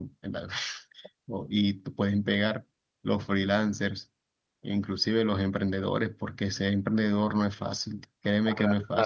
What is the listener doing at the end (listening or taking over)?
listening